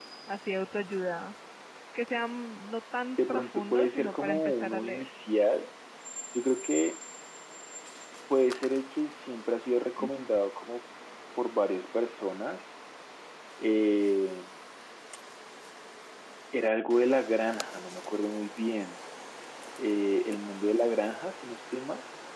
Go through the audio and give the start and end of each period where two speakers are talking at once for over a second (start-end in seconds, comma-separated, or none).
3.3-5.1